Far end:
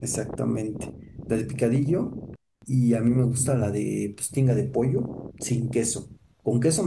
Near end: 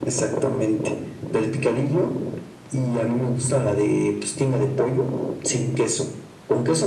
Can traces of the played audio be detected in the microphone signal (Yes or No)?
Yes